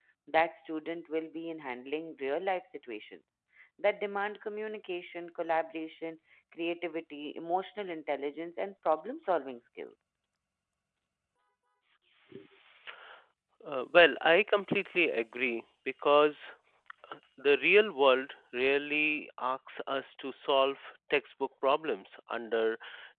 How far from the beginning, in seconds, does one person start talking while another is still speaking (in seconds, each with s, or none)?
none